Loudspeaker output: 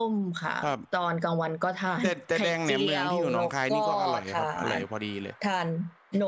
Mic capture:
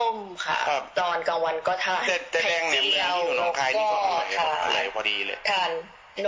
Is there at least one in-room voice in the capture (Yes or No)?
No